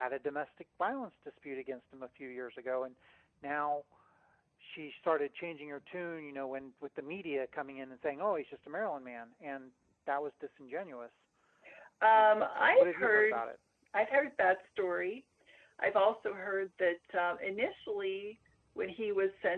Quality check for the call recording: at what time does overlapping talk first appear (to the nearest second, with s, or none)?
12 s